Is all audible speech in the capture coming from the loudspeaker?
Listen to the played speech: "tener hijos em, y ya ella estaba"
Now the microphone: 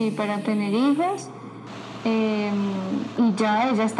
Yes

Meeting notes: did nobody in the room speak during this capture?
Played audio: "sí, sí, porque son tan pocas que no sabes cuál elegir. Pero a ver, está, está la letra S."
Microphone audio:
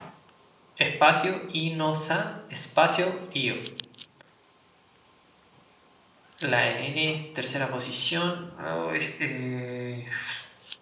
No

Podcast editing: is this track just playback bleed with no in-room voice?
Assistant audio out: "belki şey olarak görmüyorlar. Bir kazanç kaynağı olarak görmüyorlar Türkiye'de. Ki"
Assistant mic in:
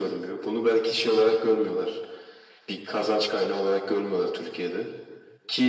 Yes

